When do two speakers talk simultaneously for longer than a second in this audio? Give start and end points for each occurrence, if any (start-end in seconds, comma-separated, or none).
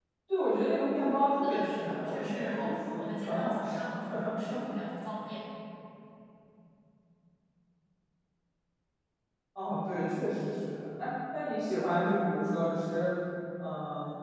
1.4-3.8